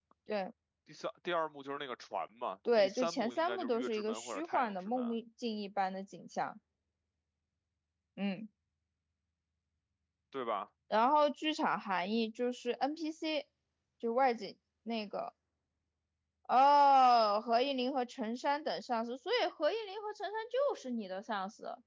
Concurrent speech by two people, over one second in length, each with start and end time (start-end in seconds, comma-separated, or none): 2.8-5.1